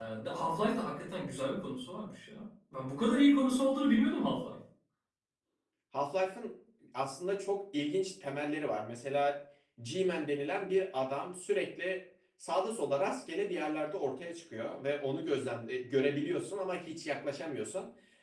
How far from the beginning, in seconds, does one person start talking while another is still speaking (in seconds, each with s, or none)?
none